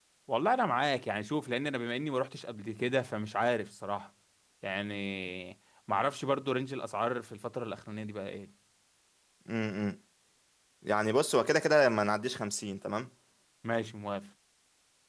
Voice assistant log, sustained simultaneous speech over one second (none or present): none